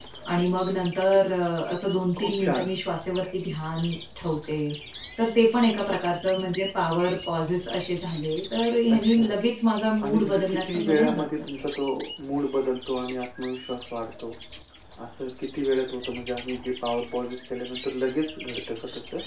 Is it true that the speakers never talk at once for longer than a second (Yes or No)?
No